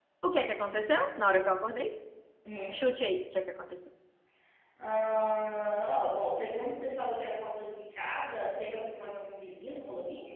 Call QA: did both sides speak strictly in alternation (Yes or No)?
Yes